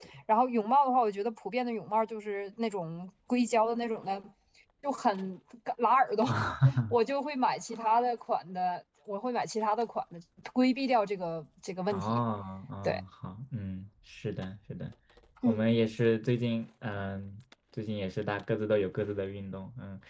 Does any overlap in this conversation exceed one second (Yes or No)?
No